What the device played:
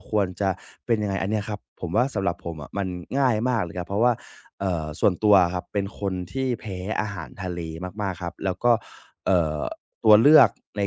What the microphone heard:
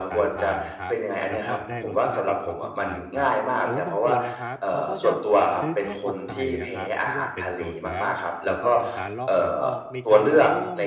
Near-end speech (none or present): present